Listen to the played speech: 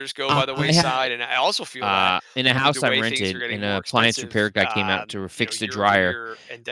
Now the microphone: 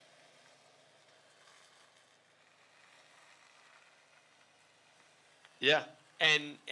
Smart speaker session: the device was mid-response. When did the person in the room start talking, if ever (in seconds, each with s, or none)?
5.6 s